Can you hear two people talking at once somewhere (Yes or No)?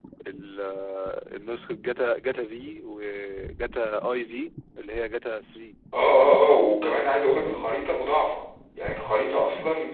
No